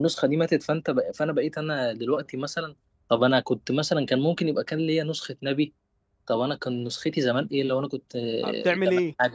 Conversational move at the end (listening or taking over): taking over